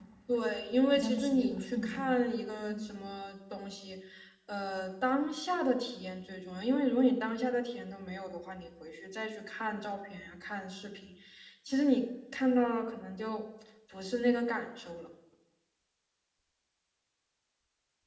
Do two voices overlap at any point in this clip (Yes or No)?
Yes